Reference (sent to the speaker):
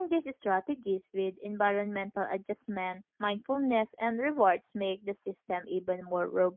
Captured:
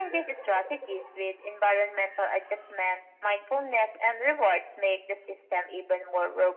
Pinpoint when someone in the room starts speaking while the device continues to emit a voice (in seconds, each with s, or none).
none